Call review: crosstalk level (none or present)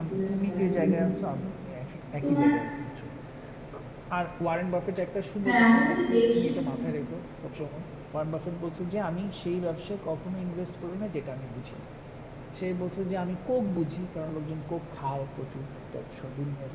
present